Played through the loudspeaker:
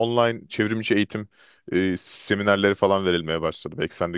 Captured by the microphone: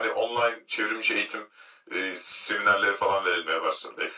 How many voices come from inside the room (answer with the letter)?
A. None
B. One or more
A